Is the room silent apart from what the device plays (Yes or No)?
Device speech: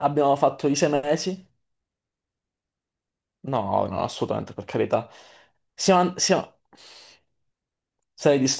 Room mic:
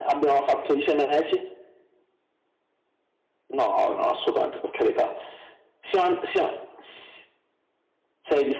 Yes